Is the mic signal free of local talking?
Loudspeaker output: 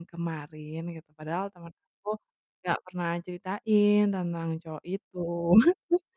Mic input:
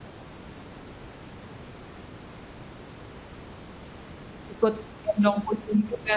No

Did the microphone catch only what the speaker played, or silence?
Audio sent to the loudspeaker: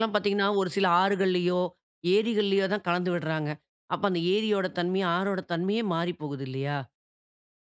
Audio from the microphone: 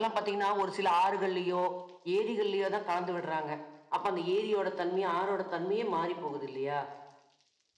Yes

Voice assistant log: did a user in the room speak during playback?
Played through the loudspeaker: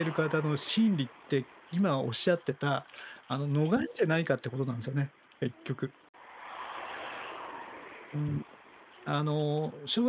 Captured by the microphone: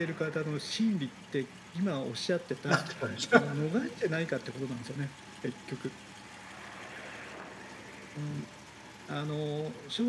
Yes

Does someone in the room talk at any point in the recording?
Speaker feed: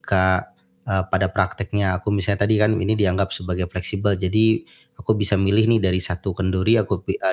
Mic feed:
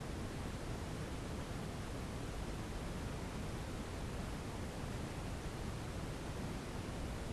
No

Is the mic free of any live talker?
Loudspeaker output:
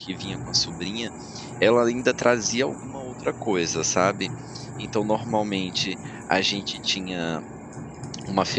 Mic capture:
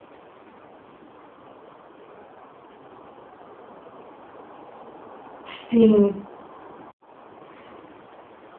No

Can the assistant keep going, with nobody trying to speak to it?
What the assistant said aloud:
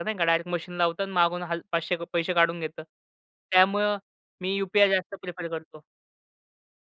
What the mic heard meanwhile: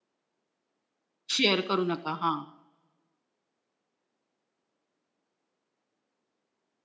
No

